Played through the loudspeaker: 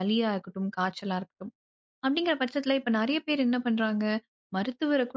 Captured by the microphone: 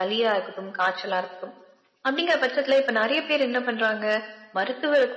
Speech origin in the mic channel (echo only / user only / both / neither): echo only